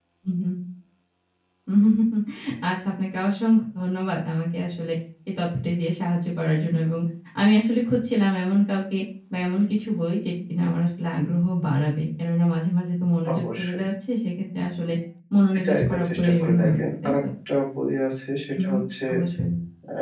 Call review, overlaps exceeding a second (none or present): present